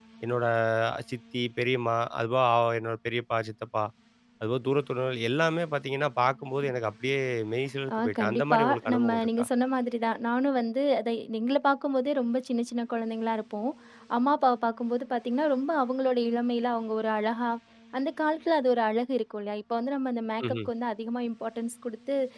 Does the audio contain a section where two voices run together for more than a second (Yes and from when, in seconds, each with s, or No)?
Yes, from 8.0 s